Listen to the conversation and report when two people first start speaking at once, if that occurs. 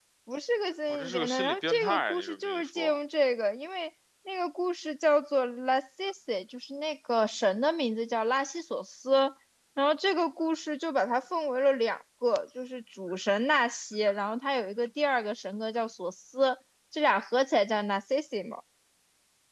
1 s

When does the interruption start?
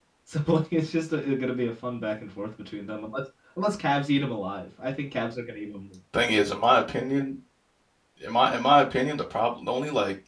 none

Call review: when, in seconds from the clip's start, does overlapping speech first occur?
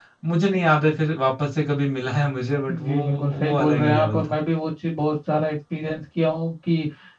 3 s

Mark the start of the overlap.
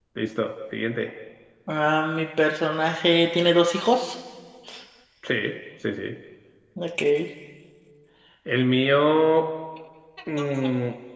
none

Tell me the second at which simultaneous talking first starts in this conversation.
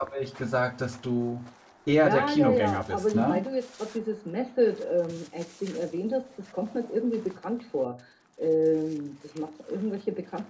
2 s

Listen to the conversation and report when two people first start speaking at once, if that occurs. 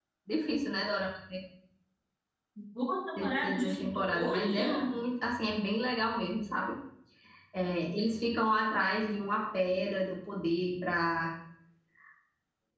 3 s

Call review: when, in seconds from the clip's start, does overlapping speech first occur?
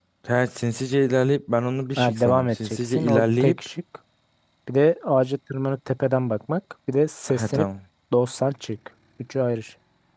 2 s

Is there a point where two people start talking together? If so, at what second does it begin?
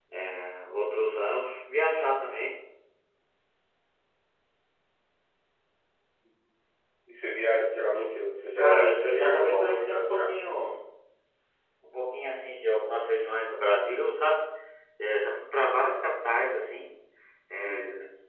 9 s

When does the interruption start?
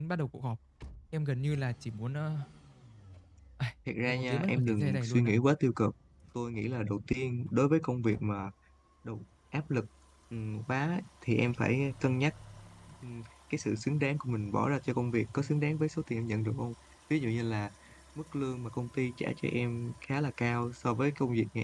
4 s

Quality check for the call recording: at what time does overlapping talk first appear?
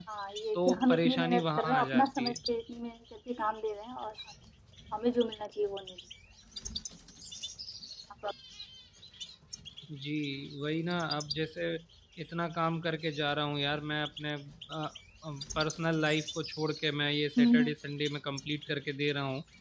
1 s

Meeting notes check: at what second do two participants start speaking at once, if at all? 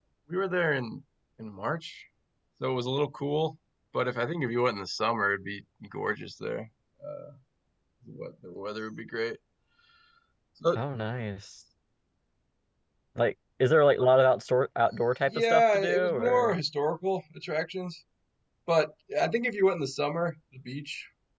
15 s

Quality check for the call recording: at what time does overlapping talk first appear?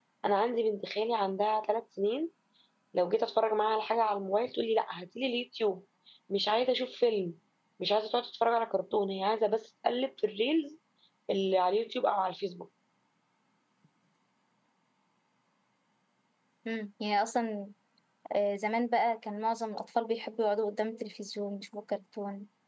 none

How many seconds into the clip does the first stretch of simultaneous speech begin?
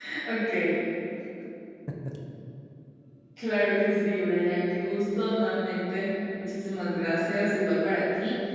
none

